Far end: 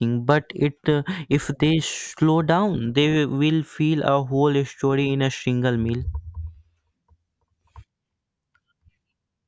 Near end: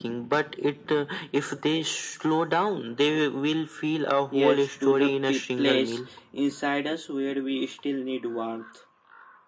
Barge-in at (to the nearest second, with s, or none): 4 s